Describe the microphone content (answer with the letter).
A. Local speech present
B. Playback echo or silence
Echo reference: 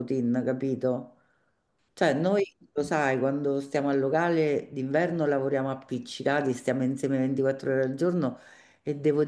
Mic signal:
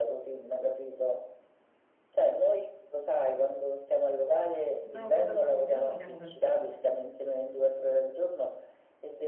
A